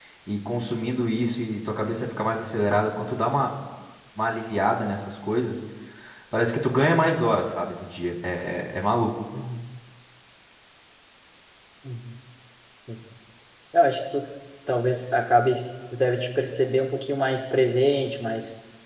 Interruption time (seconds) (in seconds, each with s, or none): none